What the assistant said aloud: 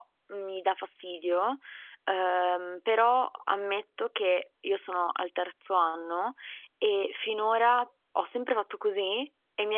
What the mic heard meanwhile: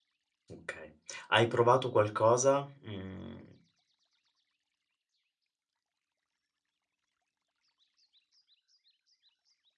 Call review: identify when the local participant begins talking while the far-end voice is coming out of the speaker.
1 s

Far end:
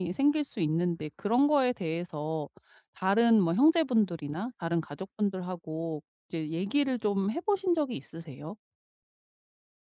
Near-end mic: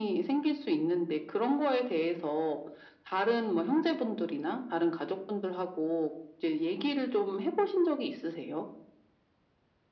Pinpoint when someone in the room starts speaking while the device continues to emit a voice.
none

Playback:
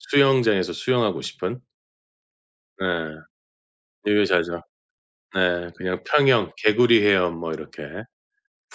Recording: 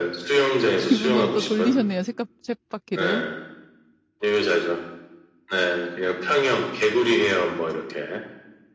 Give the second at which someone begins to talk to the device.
1 s

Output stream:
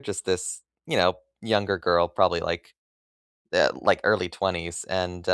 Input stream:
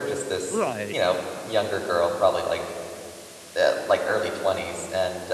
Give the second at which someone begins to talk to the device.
0 s

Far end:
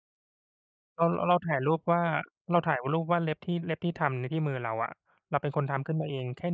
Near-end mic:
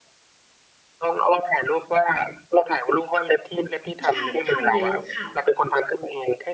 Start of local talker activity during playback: 4 s

